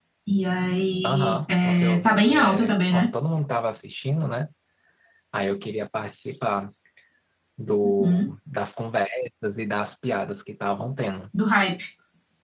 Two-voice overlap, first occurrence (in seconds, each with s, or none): 1.0 s